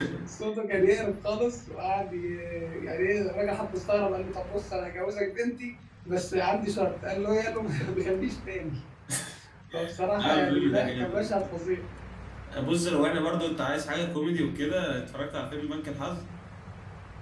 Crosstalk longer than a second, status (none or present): present